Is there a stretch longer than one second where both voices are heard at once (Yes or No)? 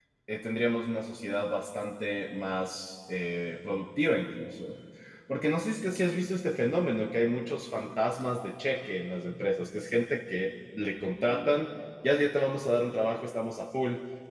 No